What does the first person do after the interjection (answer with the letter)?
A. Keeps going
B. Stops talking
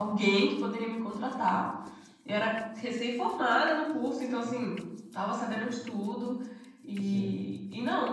A